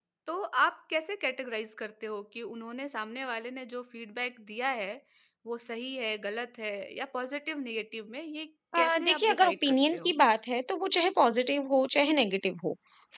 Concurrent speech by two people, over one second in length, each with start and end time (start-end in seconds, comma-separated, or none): 8.8-10.1